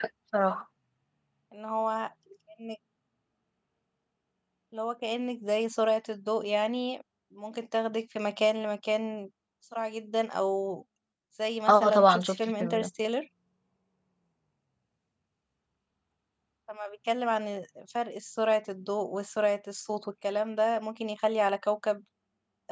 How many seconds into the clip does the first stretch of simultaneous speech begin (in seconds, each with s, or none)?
11.7 s